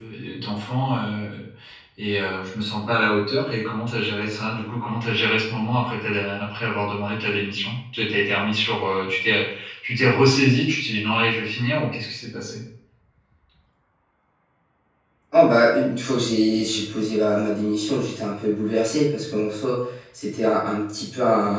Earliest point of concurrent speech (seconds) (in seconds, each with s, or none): none